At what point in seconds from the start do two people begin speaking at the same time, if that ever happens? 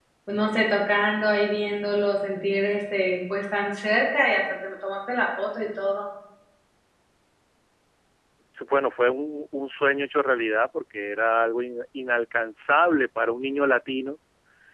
none

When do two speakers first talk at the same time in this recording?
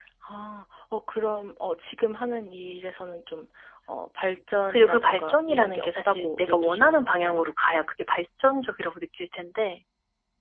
4.7 s

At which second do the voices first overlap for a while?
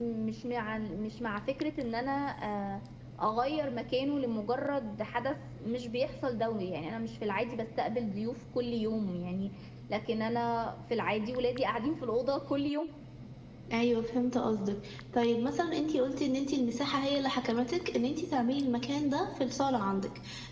none

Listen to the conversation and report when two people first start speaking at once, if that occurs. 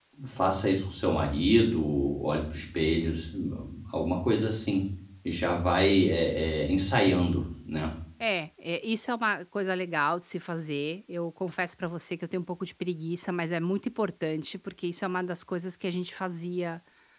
none

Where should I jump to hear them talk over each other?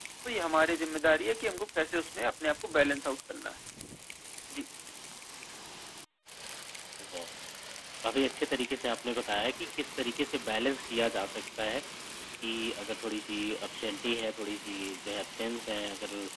none

